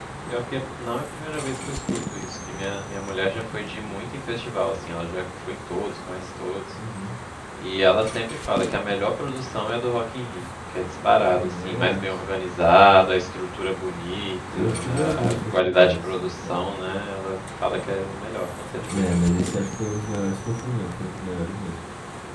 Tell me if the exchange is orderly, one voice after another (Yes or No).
No